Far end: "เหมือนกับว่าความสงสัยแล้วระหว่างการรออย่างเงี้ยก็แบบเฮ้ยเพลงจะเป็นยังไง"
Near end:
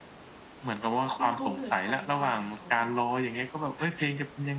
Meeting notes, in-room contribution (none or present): present